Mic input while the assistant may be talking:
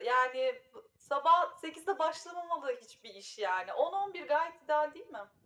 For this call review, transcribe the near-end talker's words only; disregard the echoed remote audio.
none

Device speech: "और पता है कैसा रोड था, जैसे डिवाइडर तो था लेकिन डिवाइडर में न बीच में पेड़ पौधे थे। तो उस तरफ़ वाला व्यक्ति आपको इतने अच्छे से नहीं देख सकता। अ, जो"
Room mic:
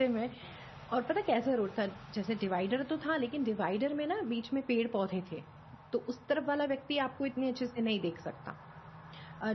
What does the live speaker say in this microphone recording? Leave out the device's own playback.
none

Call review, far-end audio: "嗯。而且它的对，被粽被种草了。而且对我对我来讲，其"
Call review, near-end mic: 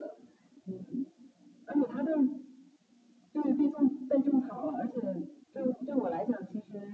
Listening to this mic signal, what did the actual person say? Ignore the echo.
none

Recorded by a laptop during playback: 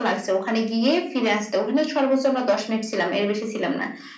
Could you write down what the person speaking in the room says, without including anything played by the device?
none

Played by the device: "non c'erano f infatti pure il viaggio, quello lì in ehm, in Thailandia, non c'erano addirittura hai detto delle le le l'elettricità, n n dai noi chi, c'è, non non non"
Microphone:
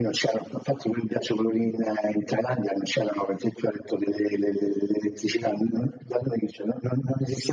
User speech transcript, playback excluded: none

